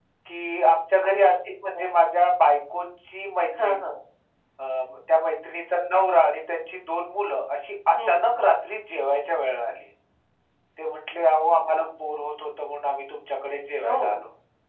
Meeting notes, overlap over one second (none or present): none